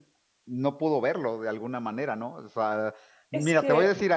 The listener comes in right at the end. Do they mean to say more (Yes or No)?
No